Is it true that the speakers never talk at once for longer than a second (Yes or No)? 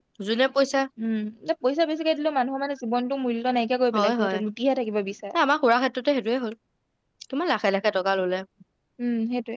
Yes